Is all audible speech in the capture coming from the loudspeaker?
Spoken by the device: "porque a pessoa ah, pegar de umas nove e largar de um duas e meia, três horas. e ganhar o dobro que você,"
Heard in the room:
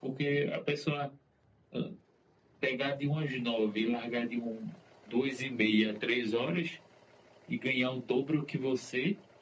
Yes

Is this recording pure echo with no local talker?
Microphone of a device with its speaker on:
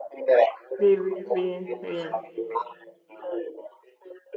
No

